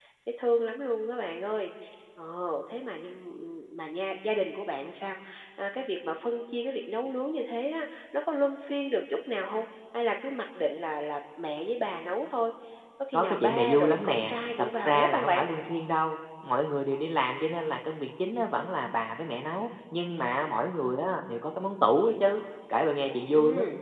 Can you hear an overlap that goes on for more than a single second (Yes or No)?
Yes